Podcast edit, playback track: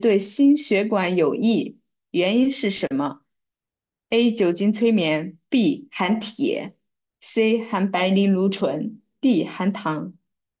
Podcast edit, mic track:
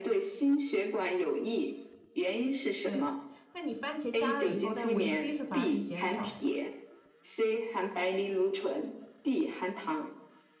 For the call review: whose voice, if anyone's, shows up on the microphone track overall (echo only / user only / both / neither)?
both